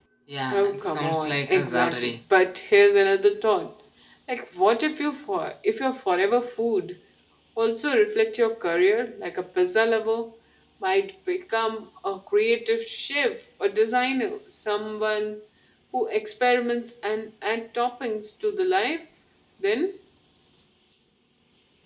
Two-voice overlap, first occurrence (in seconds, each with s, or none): 0.5 s